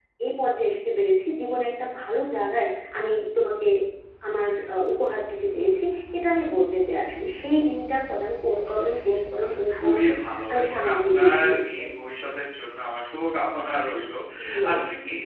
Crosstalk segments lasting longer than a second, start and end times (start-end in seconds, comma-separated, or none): 9.4-11.9